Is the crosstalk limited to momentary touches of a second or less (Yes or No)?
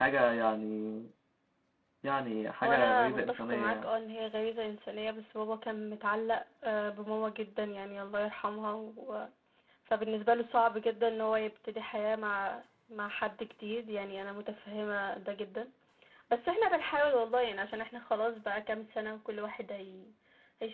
No